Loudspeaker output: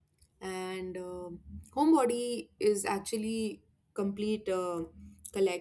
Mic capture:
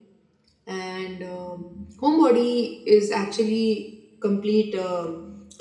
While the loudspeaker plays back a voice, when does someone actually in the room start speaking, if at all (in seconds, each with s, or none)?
none